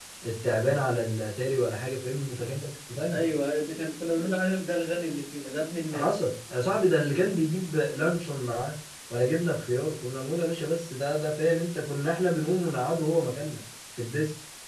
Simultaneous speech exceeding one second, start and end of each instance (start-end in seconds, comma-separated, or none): none